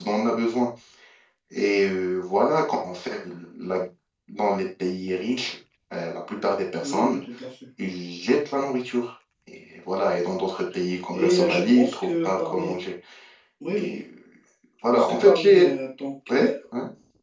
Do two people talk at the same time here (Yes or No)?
Yes